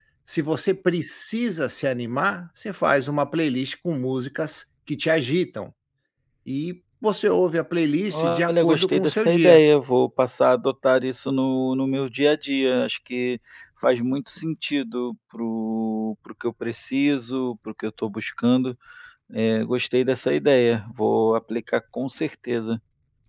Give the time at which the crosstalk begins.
8 s

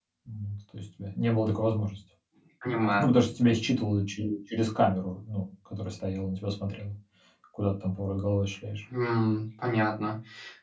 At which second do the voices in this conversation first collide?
none

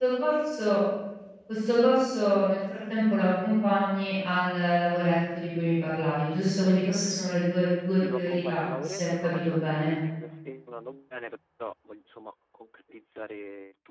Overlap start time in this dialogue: 8 s

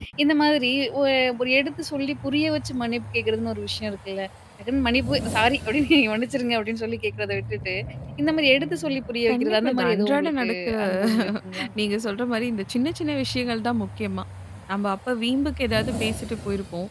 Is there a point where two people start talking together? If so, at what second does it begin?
9 s

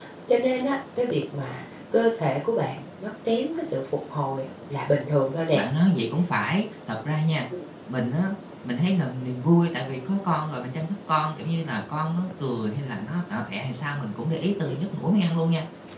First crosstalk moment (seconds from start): none

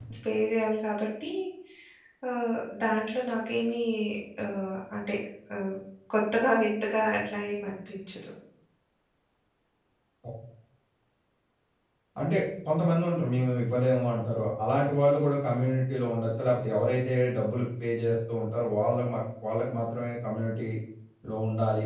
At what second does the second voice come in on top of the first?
none

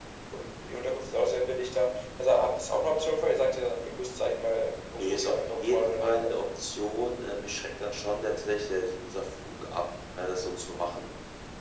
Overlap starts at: 5 s

